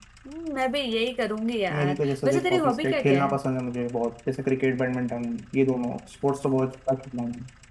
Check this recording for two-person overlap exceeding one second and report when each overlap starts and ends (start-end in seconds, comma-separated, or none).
1.7-3.3